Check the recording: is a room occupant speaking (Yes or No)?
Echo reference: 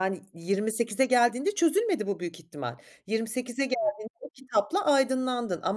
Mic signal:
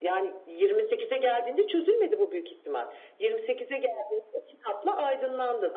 No